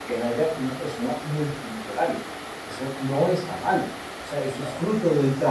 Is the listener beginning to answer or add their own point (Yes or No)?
No